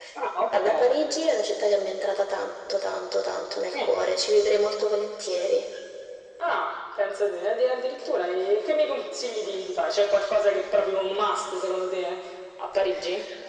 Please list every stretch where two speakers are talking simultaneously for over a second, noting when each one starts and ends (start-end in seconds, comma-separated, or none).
none